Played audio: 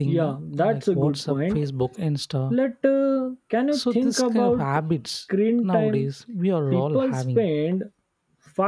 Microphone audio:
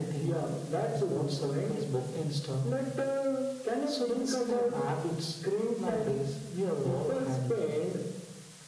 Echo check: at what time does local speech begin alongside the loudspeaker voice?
none

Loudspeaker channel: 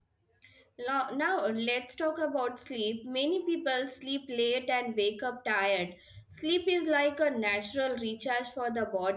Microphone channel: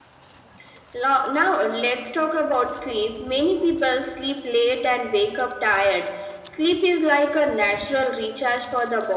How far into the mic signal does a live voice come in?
none

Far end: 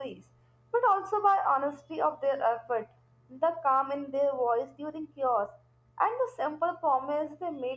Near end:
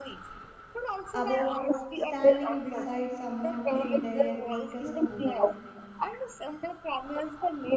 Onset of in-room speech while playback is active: 1.1 s

